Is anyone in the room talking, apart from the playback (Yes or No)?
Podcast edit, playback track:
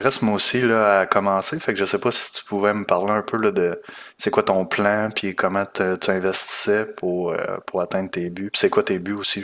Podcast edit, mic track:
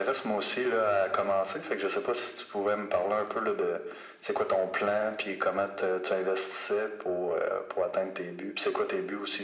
No